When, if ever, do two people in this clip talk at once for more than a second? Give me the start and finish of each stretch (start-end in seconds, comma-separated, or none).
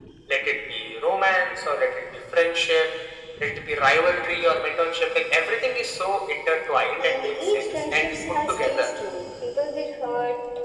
7.0-8.9